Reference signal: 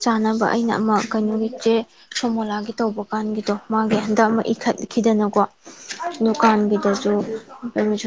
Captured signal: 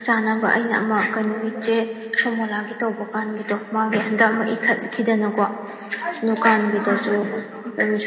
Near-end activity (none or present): present